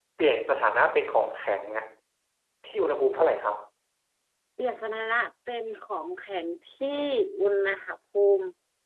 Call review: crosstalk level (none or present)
none